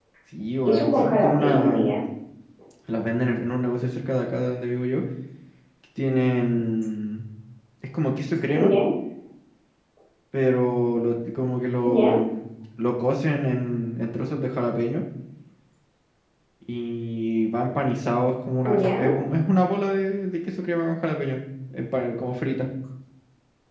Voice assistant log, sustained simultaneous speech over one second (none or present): present